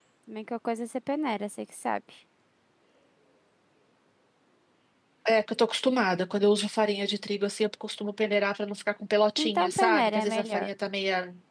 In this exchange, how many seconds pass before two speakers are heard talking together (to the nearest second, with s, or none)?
9 s